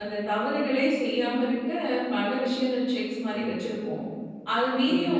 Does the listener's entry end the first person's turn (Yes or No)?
No